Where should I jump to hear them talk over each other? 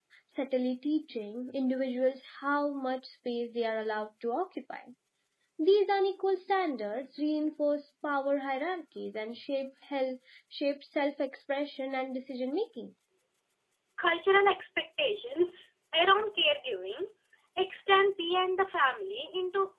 none

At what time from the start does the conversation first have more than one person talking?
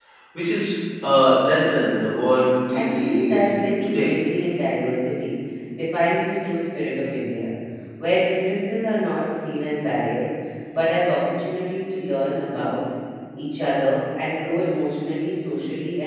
2.7 s

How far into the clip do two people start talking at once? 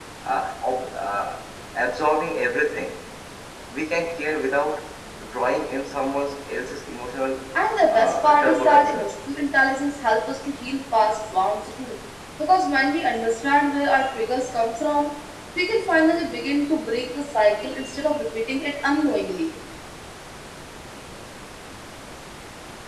7.9 s

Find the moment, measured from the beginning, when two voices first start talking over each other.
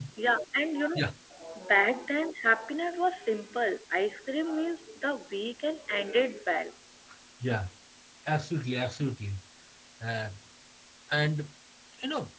none

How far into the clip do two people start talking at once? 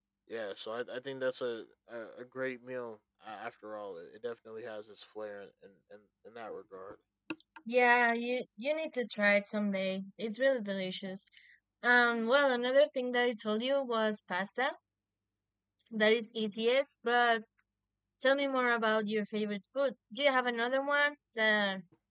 none

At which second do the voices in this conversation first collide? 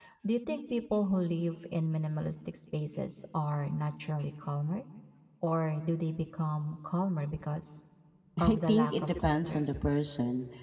8.4 s

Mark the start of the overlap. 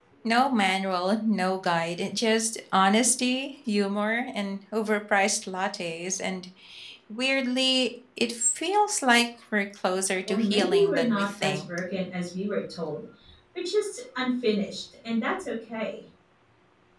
10.3 s

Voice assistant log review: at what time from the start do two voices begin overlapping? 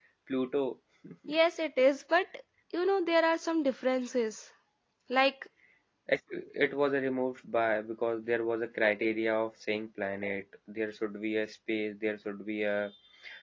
none

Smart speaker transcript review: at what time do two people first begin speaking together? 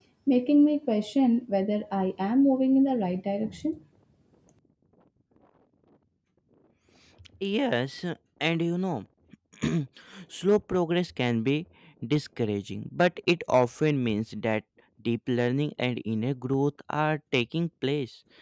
none

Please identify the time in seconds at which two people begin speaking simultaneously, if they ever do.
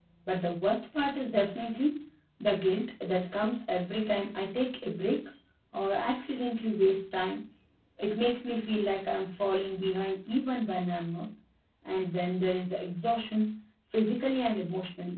none

